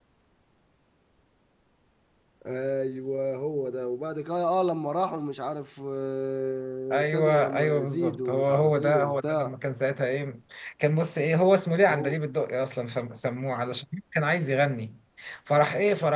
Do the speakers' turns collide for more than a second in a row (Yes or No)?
Yes